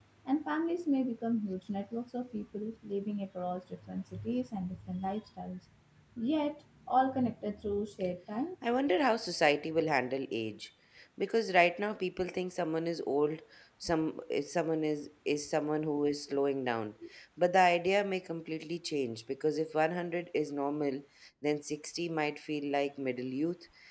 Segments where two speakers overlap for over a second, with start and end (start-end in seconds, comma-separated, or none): none